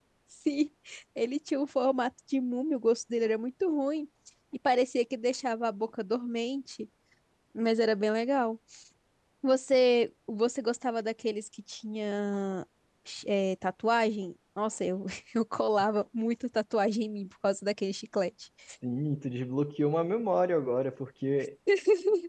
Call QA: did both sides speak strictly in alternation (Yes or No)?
Yes